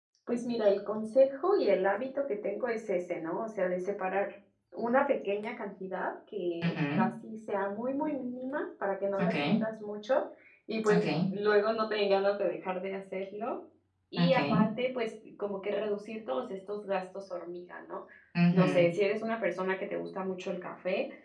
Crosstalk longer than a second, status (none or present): none